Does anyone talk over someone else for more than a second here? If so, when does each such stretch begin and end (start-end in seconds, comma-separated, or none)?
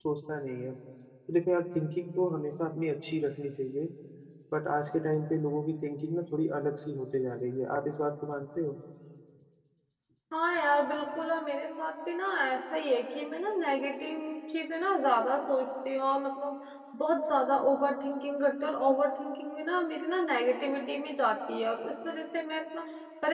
none